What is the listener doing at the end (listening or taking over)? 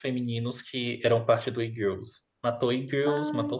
listening